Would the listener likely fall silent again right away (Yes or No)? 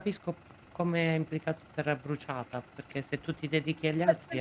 No